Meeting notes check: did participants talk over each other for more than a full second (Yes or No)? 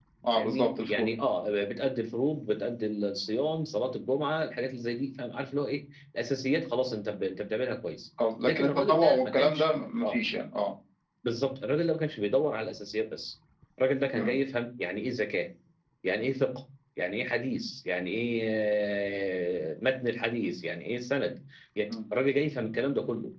Yes